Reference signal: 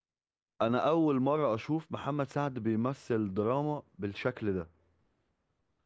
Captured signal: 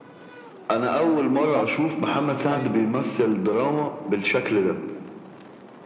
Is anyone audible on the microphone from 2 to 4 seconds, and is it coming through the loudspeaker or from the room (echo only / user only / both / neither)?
both